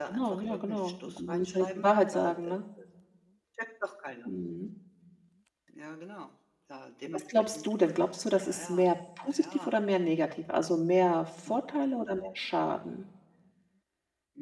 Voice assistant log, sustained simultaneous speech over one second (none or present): present